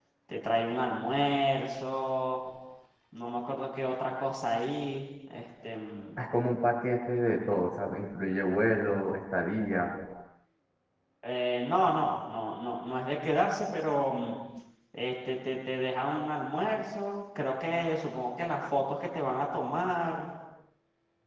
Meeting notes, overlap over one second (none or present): none